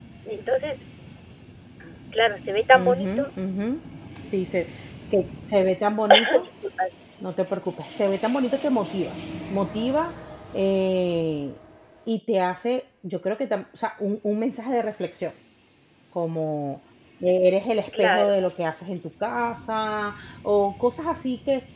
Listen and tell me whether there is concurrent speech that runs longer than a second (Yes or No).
No